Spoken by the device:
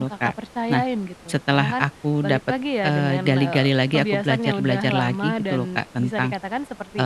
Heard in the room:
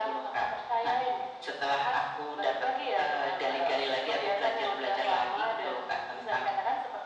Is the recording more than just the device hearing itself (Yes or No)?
No